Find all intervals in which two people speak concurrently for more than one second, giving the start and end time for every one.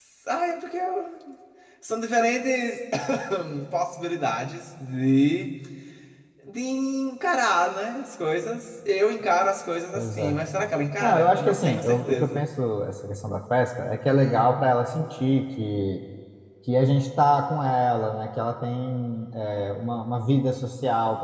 11.0-12.5

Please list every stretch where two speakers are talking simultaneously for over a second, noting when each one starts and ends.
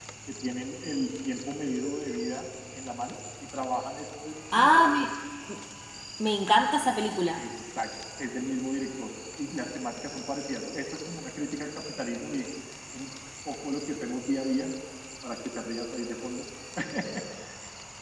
none

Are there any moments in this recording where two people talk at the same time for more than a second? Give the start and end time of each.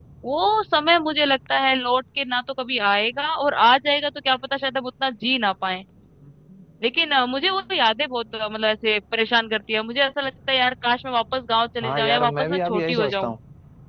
11.8-13.3

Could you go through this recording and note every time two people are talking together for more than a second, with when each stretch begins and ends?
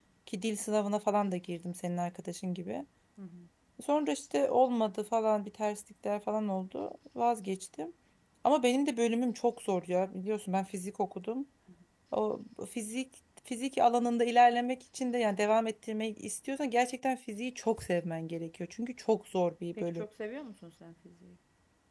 none

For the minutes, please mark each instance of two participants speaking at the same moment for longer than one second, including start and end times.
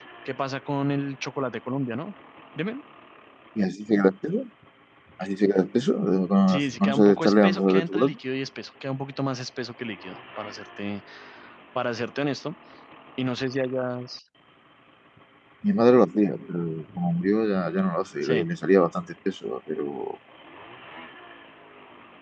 6.5-8.2

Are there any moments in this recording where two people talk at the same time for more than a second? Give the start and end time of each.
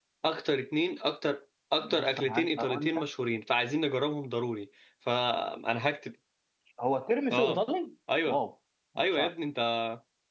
1.8-3.0

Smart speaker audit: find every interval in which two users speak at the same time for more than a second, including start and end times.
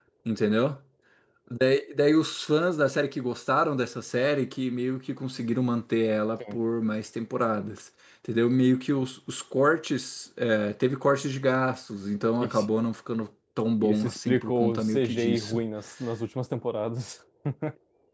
13.8-15.6

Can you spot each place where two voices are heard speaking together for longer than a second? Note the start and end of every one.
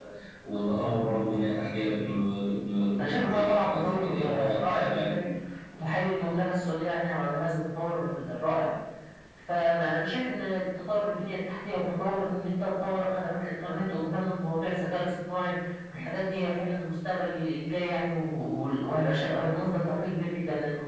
3.0-5.2

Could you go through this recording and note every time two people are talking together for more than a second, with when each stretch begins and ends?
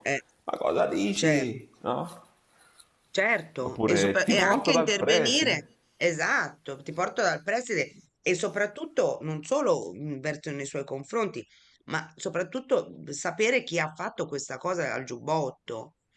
3.6-5.6

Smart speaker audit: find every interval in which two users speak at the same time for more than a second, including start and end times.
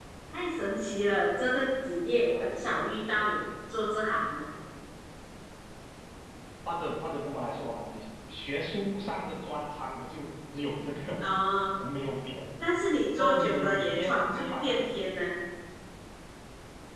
13.2-14.8

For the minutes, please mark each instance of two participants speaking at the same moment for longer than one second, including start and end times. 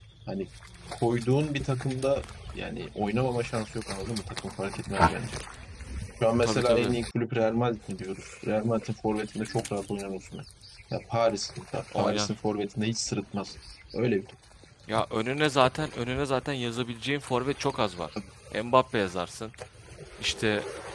none

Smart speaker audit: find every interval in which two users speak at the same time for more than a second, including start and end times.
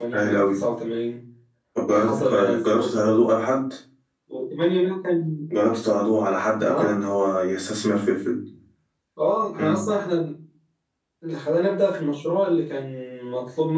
1.9-3.2

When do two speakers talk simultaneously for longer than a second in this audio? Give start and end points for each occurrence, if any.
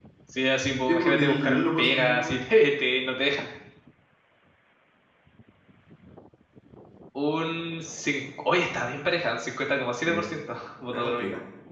0.9-2.4

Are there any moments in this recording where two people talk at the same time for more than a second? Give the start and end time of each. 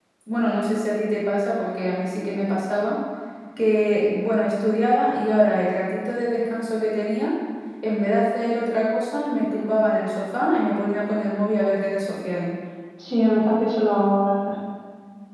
none

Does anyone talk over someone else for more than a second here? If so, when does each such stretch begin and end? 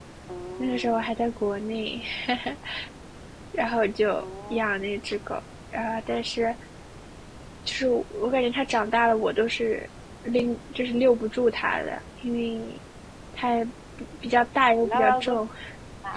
none

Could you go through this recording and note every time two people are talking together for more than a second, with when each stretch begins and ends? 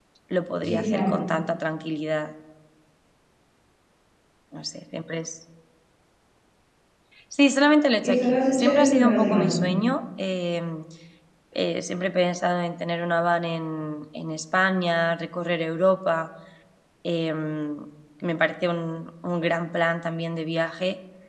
8.0-9.6

